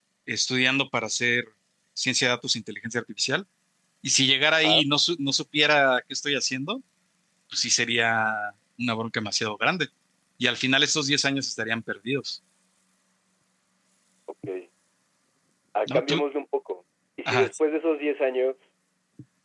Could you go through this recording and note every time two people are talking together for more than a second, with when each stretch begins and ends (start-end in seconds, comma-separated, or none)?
none